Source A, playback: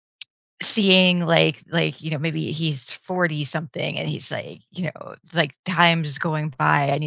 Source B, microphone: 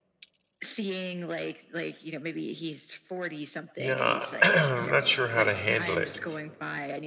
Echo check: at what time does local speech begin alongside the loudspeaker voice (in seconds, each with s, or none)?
3.7 s